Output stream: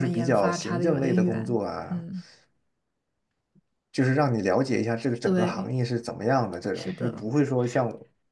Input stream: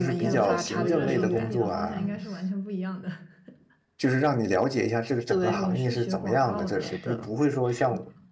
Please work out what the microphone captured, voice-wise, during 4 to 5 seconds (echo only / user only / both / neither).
echo only